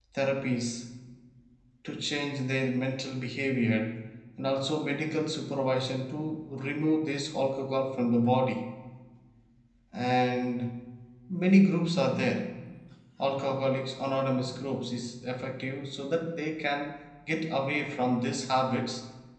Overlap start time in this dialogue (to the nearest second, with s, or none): none